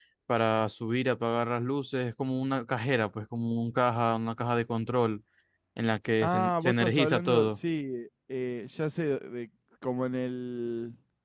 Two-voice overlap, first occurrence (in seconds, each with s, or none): 6.2 s